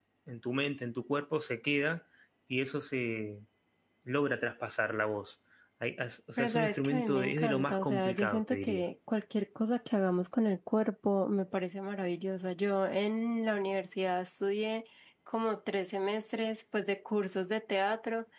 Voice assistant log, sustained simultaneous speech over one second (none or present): present